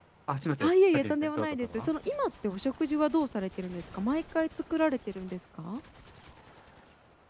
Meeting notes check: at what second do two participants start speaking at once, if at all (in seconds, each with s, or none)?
0.6 s